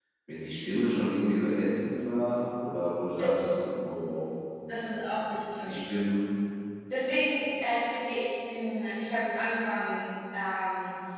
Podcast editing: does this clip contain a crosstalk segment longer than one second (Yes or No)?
No